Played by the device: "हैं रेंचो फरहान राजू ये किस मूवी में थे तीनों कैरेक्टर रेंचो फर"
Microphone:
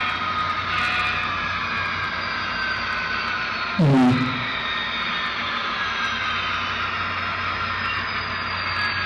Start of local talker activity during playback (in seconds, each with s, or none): 3.8 s